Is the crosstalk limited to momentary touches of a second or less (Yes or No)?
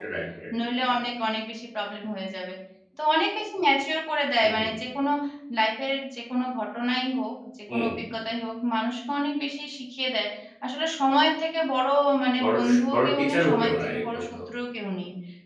No